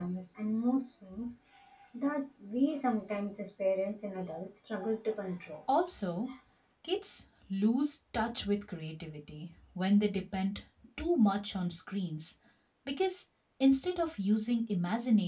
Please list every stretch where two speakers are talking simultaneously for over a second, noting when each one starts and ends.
none

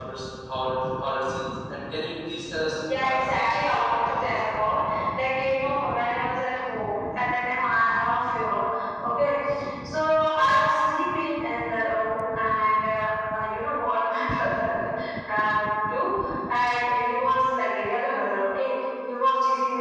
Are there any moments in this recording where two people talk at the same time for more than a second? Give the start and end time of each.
2.8-4.3

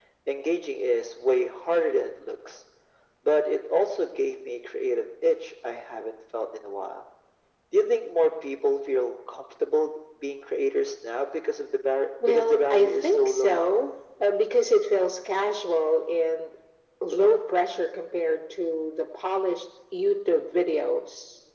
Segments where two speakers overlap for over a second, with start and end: 12.2-13.6

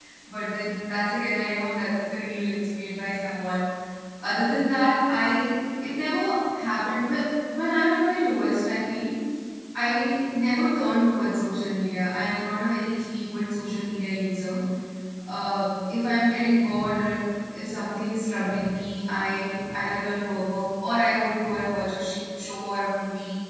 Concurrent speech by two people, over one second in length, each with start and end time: none

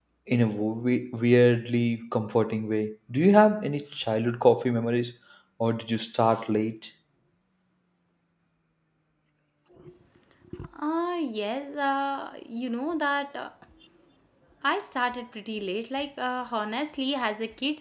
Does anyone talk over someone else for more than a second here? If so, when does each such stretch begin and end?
none

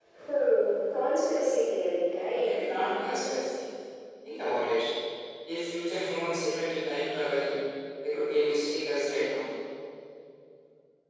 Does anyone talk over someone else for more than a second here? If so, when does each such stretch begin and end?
2.1-3.3

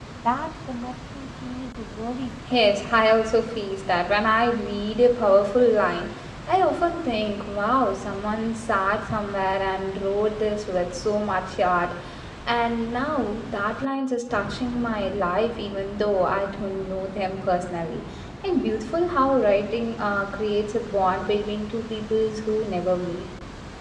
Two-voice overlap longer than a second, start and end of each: none

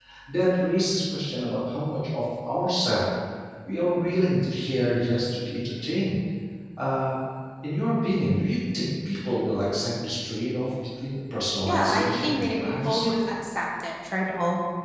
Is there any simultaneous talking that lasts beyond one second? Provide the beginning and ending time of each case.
11.6-13.1

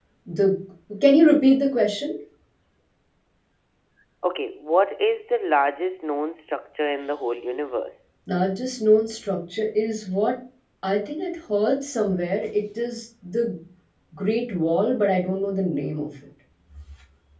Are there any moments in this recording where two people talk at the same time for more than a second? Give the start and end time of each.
none

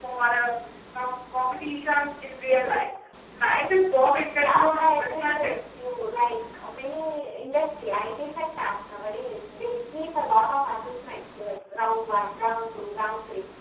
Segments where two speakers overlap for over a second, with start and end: 4.3-5.5

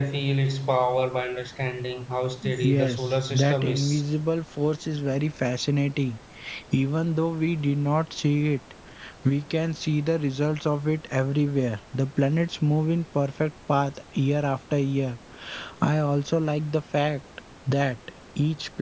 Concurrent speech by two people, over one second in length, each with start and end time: 2.6-4.0

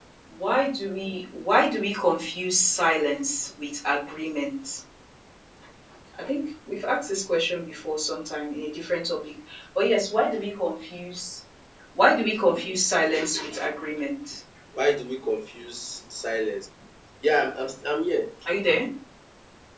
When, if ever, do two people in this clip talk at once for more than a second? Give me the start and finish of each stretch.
none

